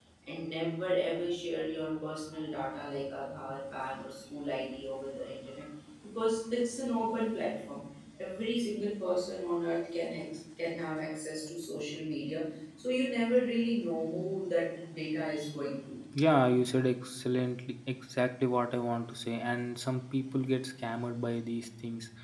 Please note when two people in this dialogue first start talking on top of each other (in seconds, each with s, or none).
none